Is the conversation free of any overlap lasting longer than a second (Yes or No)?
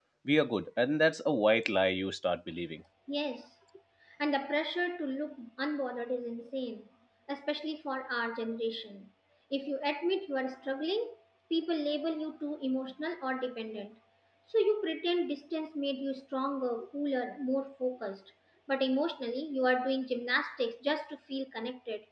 Yes